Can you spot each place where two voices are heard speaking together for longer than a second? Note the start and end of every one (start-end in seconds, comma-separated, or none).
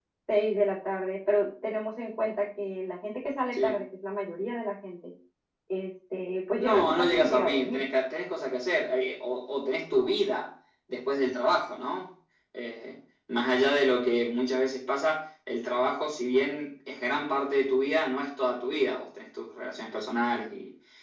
6.6-7.9